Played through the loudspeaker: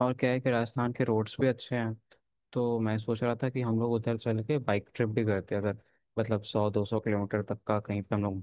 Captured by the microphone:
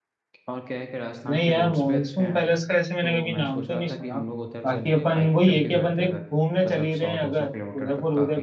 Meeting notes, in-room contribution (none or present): present